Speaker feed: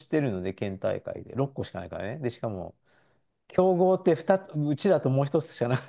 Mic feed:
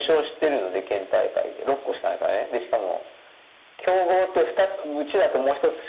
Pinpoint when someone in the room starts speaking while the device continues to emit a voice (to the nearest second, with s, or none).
none